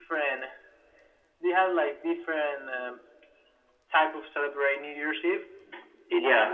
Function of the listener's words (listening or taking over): taking over